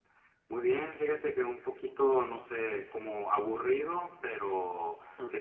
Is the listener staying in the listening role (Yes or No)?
Yes